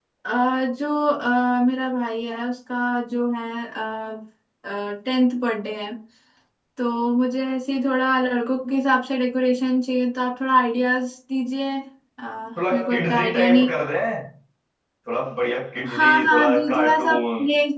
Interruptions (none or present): present